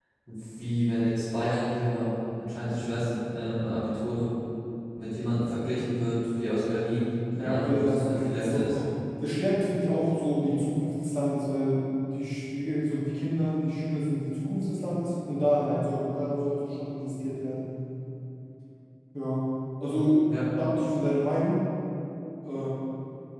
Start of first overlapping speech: 7 s

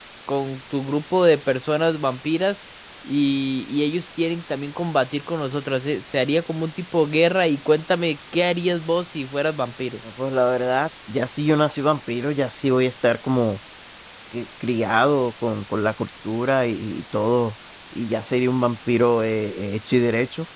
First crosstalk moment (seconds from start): none

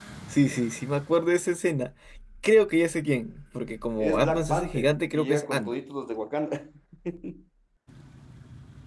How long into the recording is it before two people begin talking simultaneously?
4 s

